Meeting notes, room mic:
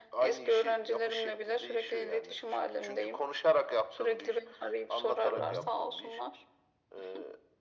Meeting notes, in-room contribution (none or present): present